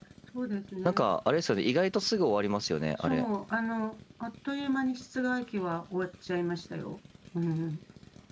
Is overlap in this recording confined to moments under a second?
Yes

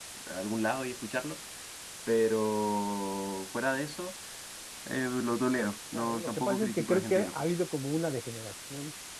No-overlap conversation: No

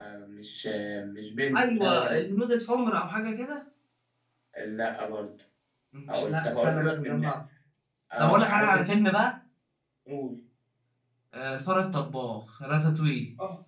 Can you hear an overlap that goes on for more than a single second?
Yes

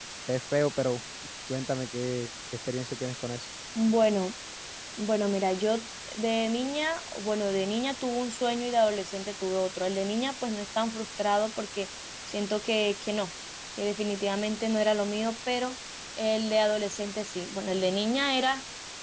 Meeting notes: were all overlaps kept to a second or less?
Yes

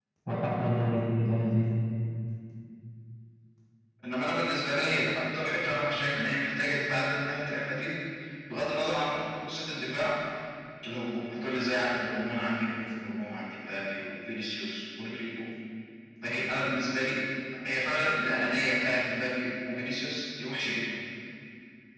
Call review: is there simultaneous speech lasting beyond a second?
No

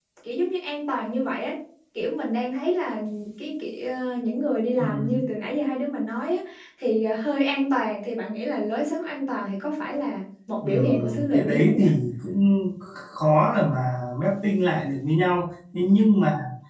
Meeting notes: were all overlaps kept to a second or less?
No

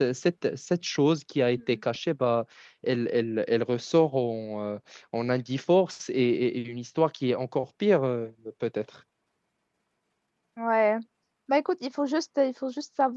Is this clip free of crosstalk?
Yes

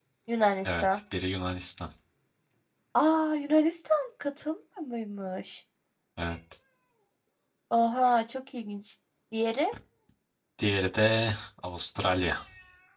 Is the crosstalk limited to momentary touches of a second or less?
Yes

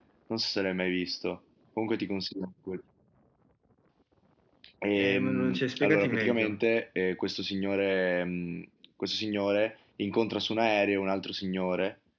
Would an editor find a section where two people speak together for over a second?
Yes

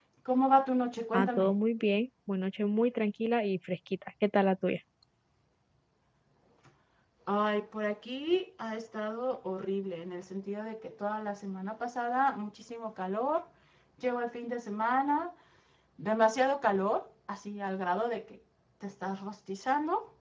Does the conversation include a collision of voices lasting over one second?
No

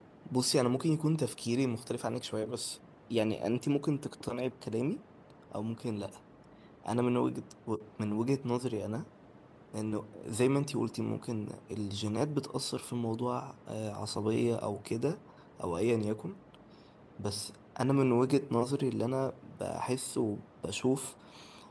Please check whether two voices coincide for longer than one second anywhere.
No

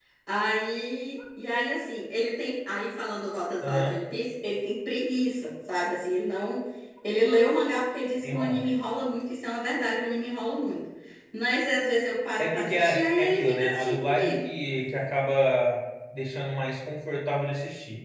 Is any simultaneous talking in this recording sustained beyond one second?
Yes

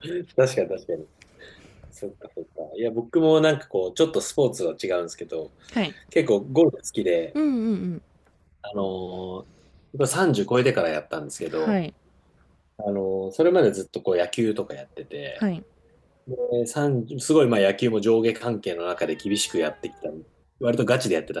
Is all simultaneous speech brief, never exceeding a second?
Yes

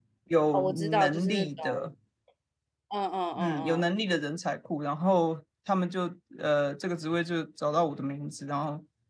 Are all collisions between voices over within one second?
No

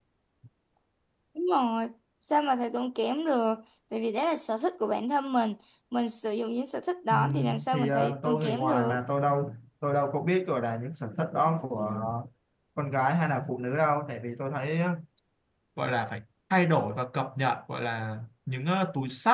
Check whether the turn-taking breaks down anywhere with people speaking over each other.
Yes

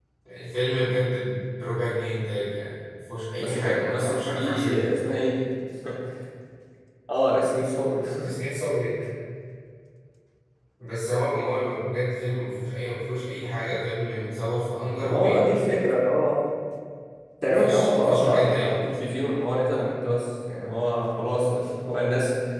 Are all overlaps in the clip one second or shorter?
No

